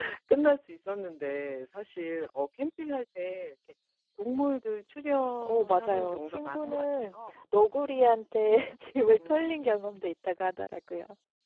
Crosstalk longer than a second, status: present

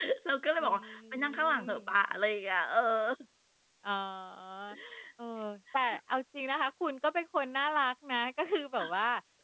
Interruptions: present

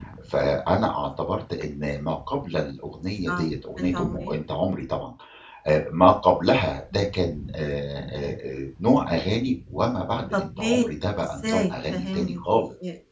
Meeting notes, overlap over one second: present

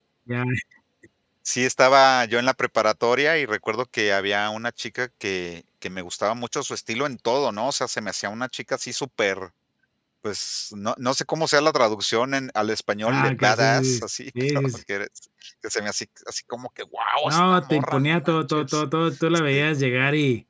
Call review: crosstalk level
present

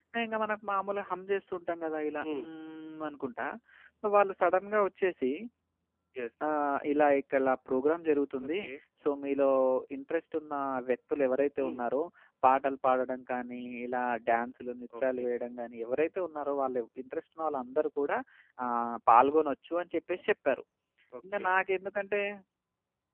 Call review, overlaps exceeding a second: none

